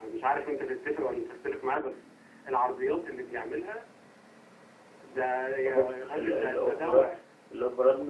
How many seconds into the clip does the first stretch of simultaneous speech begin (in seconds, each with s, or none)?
5.7 s